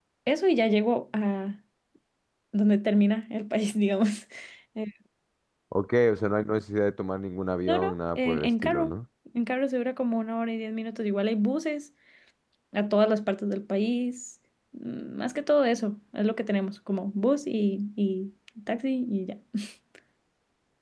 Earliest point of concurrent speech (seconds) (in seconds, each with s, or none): 7.7 s